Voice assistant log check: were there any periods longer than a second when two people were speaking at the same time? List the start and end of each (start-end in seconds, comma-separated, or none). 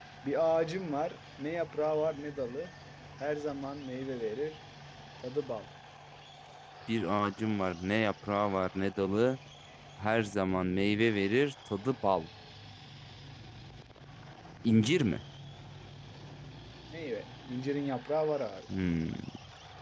none